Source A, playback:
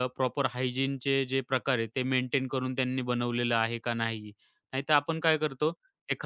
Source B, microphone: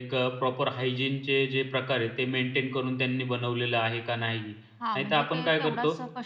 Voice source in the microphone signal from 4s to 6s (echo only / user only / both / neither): both